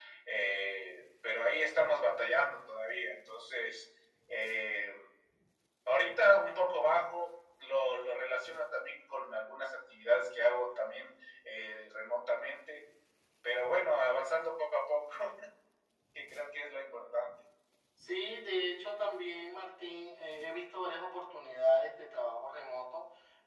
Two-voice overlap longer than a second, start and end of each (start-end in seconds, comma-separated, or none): none